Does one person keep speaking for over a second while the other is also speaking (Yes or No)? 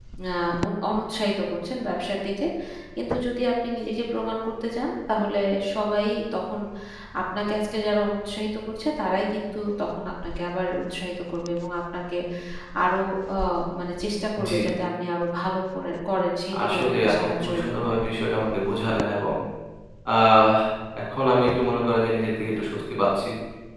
Yes